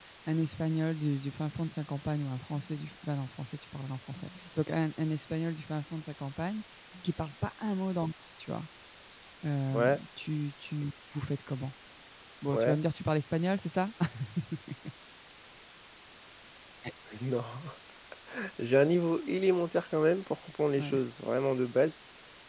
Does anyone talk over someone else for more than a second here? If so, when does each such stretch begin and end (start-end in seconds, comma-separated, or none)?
none